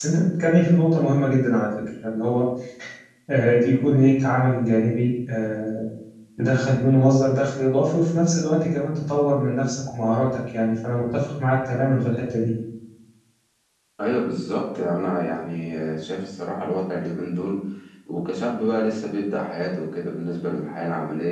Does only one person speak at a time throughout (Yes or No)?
Yes